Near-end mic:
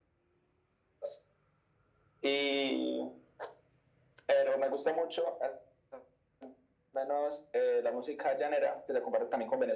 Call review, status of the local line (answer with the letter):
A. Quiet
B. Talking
A